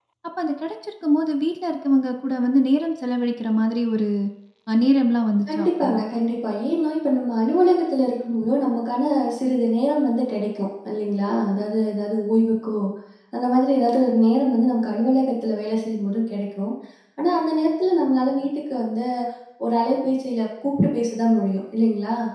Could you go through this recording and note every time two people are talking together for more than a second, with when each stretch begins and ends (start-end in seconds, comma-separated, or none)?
none